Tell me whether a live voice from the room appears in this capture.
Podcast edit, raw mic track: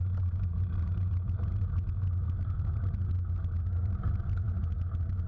No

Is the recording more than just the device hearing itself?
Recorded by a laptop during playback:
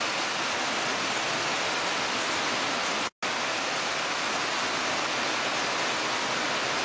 No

